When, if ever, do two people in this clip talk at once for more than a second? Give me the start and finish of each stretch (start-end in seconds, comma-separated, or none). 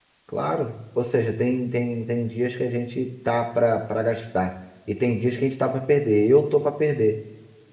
none